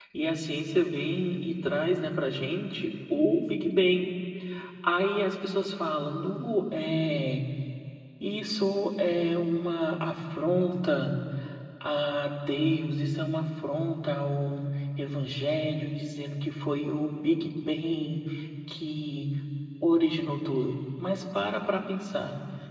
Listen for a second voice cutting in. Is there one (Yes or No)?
No